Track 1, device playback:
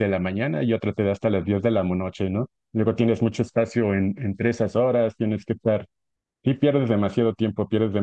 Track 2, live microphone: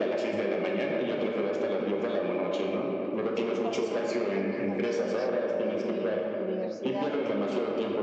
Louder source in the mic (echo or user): echo